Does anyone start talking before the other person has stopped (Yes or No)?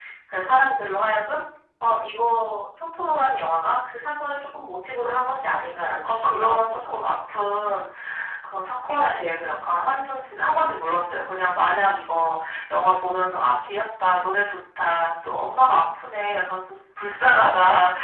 Yes